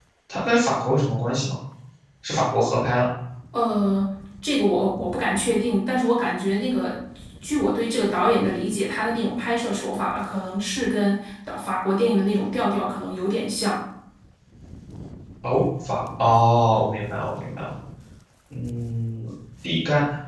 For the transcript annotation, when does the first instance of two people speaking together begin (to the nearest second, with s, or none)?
none